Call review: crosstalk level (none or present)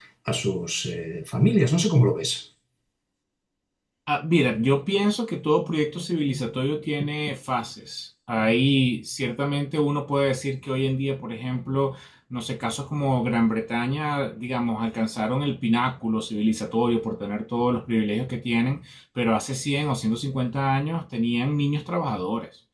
none